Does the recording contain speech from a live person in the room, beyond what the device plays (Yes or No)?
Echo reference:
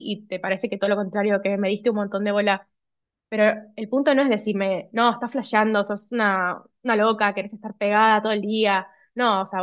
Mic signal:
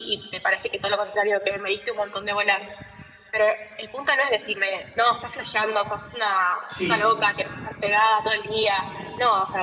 Yes